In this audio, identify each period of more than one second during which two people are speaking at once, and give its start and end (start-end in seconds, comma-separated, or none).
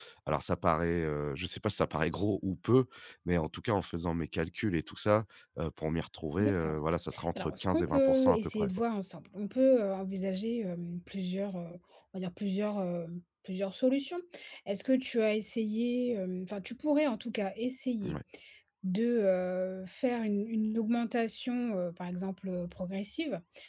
7.4-8.7